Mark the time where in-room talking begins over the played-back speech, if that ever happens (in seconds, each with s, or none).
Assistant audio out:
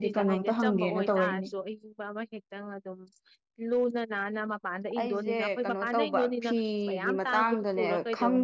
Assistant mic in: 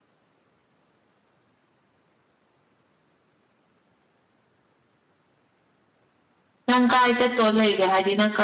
6.7 s